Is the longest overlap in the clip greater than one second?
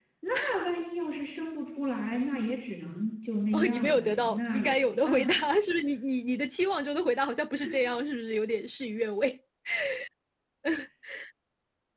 Yes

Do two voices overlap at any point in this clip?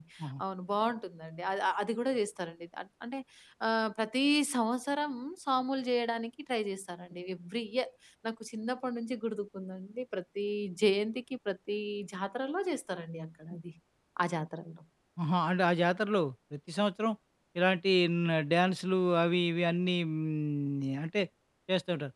No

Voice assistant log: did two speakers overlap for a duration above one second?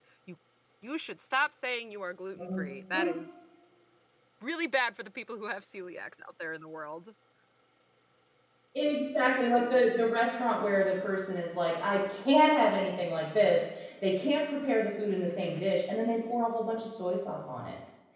No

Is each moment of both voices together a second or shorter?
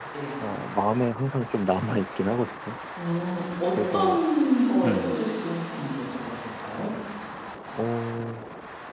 Yes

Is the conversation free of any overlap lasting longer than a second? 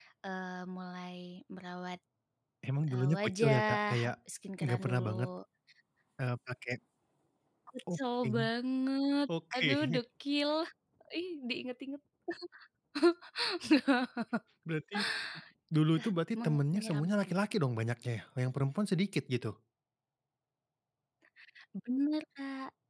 No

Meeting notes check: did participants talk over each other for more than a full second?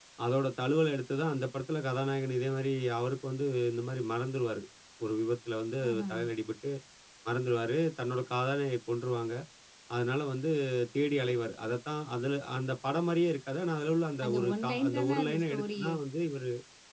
Yes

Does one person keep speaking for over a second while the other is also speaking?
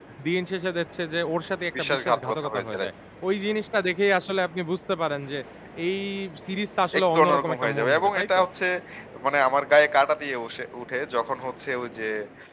Yes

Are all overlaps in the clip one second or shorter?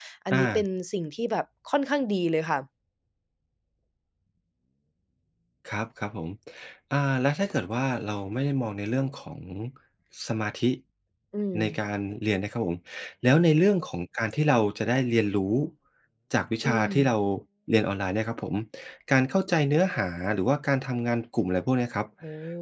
Yes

